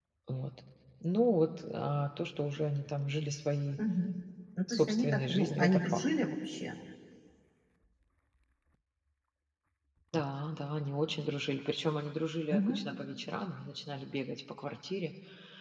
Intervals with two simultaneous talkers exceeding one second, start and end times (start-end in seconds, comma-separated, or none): 4.7-6.1